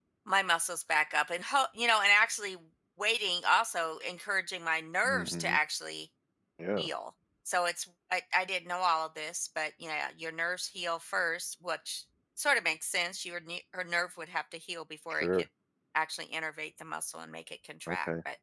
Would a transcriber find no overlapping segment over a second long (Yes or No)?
Yes